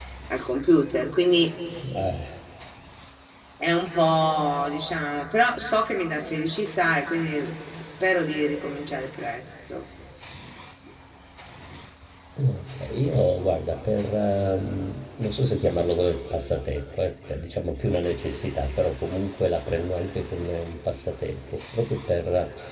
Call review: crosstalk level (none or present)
none